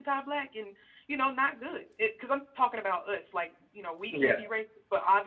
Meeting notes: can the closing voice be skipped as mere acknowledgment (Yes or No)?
Yes